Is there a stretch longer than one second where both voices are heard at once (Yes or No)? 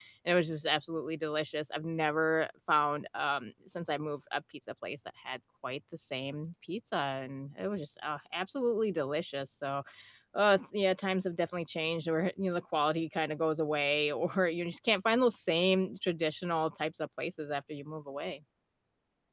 No